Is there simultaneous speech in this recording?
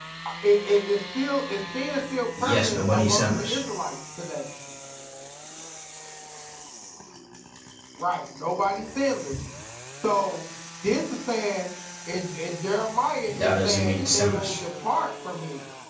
Yes, from 2.4 s

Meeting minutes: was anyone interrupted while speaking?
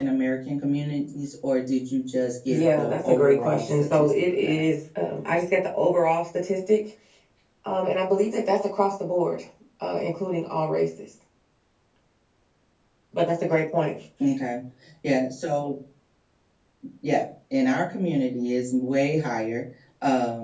Yes, from 2.5 s

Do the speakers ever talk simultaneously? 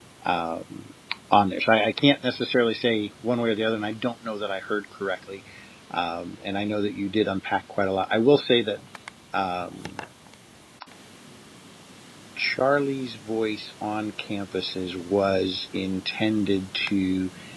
No

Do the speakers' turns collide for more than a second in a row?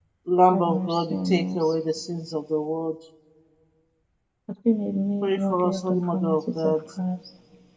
Yes, from 0.5 s

